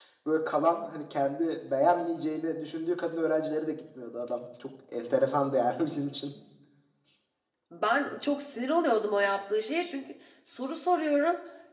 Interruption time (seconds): none

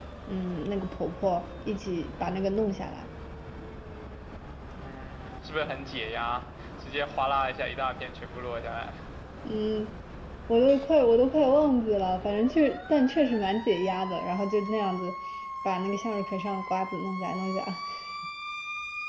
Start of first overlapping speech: none

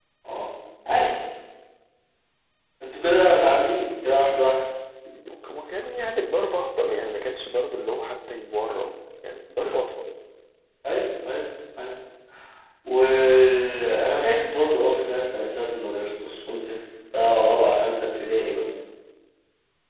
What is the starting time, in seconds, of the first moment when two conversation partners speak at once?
none

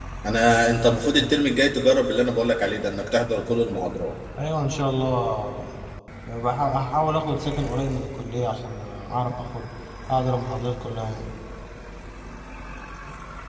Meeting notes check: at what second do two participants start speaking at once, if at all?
none

